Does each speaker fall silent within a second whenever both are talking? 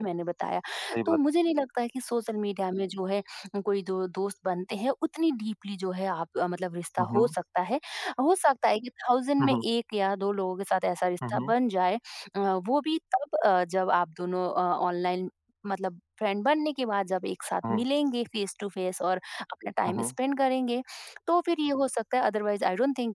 Yes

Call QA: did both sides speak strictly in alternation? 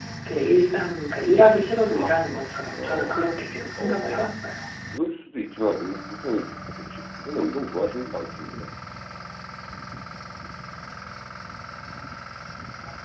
No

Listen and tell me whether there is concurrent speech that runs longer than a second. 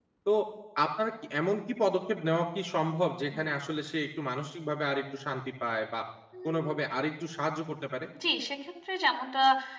No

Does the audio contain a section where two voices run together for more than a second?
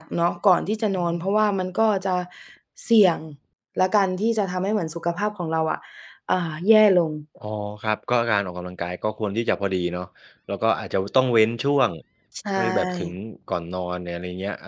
No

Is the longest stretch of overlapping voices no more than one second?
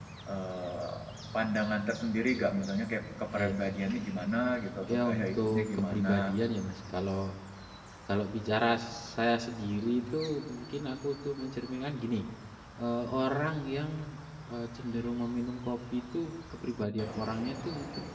No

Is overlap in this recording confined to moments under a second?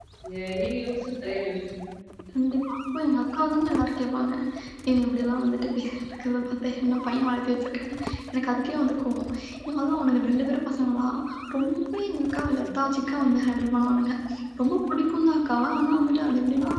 Yes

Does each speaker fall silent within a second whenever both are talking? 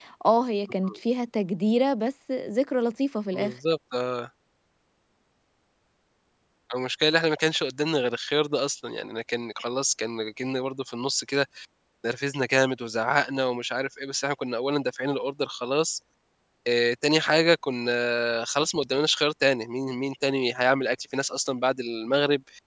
Yes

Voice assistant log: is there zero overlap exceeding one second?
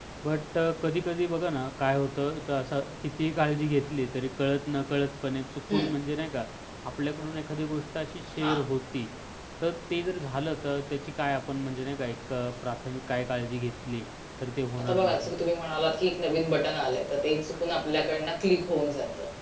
Yes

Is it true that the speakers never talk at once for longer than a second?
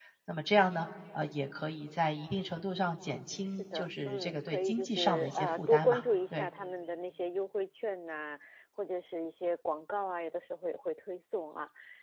No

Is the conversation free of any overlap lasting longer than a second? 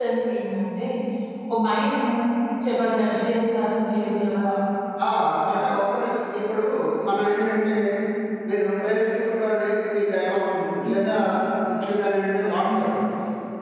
Yes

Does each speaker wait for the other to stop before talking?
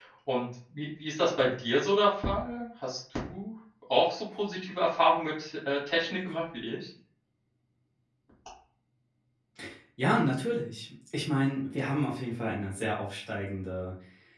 Yes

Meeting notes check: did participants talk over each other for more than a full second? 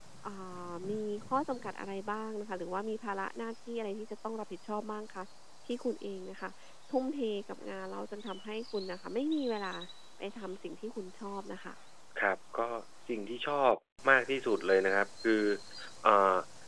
No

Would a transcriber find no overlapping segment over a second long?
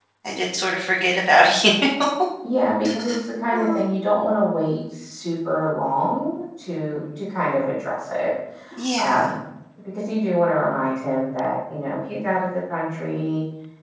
Yes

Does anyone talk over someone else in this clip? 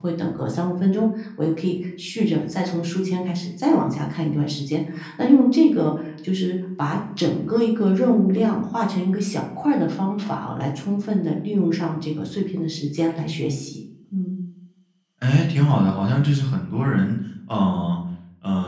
No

